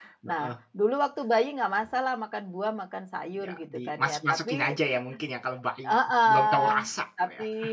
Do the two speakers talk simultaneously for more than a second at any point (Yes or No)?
Yes